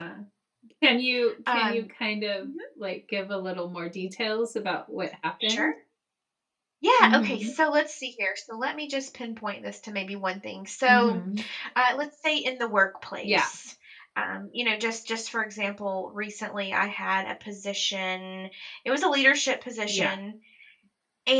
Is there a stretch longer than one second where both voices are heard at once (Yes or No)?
No